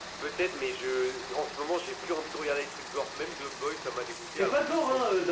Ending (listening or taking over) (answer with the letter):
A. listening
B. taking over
B